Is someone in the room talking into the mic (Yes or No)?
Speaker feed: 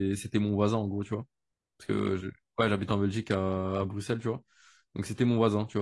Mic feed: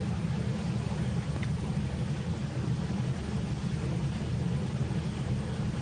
No